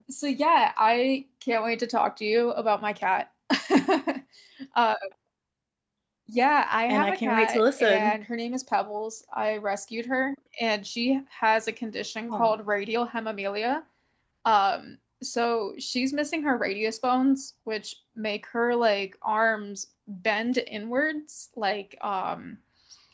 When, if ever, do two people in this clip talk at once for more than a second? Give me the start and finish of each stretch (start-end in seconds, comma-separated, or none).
6.9-8.2